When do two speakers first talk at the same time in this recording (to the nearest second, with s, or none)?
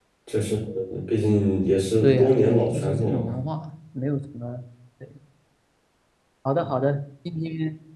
2 s